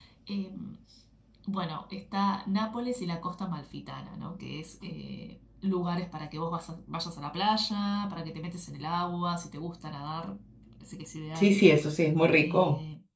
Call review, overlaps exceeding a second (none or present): none